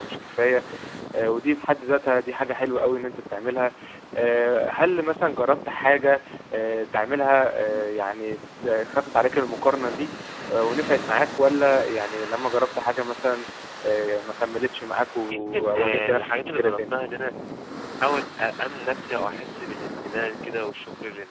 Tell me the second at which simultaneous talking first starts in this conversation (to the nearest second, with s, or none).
15 s